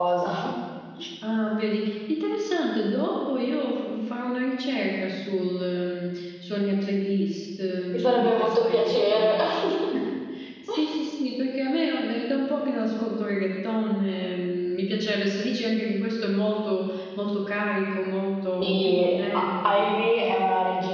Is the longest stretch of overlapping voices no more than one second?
No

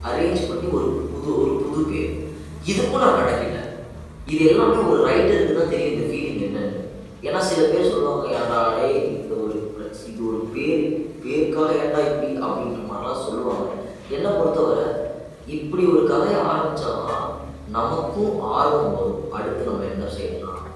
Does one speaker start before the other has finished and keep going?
No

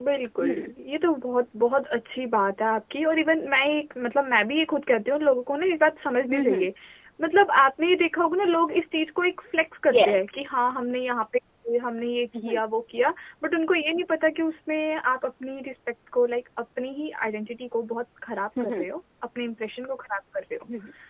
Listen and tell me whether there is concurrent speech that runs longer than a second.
No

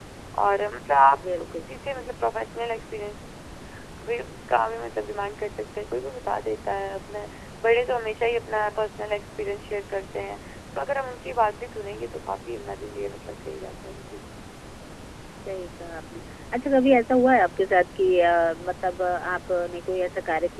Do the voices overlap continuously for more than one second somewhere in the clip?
No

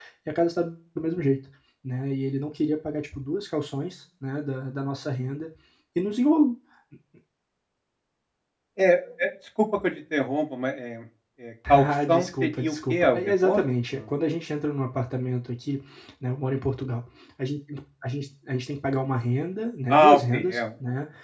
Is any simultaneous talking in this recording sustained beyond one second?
Yes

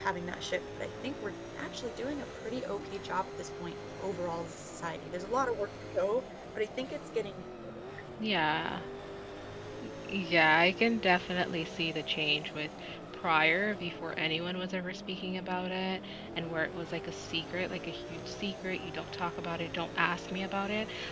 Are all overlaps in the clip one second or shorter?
Yes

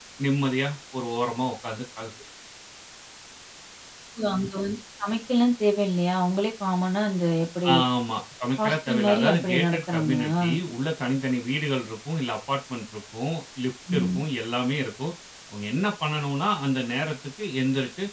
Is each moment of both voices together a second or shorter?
No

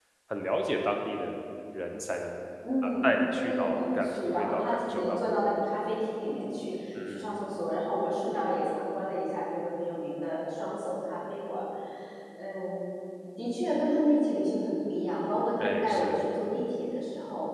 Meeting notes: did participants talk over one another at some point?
Yes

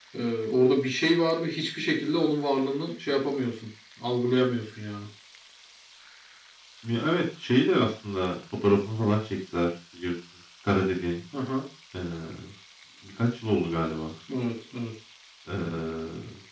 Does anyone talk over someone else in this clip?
No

